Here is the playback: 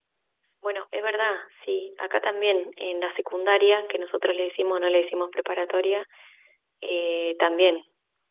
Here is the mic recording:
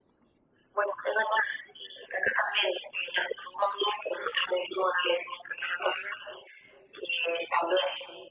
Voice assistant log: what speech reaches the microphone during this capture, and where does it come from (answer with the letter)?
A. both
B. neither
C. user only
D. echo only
D